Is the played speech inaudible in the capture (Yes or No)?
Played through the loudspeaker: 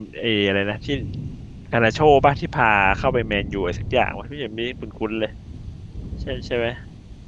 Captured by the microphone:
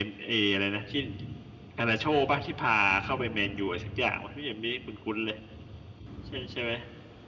No